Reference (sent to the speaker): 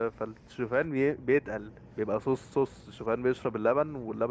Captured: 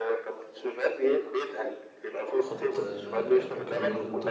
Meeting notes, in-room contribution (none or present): present